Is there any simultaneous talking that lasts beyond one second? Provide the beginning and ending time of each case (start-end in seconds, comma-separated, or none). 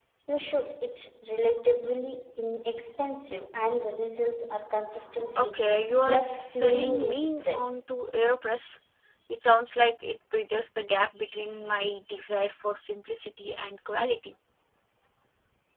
5.4-7.8